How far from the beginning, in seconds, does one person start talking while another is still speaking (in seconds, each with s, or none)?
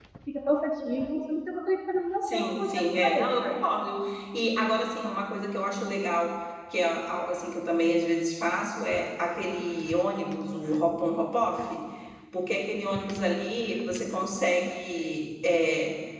2.2 s